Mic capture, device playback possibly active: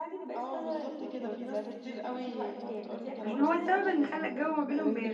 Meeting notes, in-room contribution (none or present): present